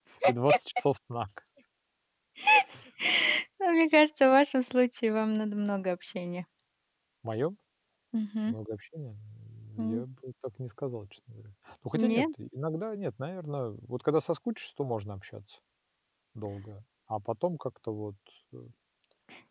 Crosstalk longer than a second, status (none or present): none